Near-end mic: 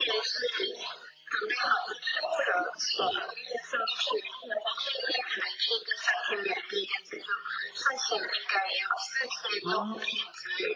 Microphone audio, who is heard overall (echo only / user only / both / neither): both